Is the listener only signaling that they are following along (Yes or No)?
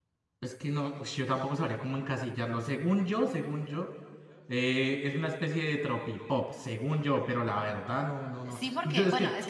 No